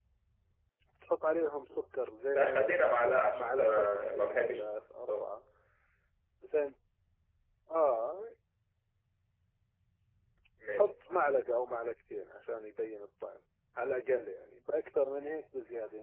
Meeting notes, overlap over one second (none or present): present